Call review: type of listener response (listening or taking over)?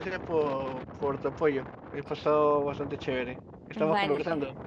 taking over